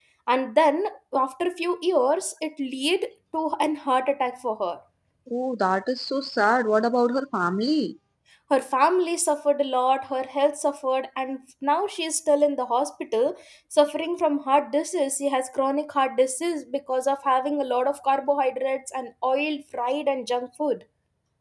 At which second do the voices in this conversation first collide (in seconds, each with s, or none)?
none